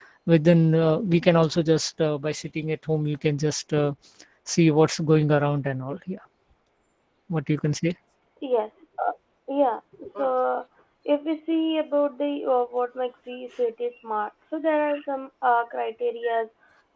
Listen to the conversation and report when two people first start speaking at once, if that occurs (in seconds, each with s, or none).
none